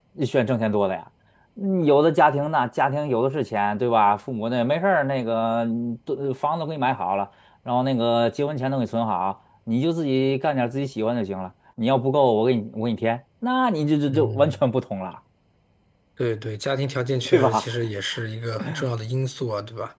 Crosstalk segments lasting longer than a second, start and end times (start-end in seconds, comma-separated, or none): none